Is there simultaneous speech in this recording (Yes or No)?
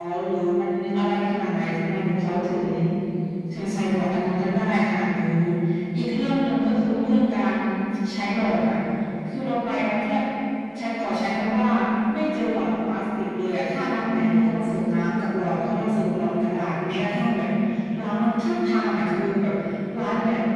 No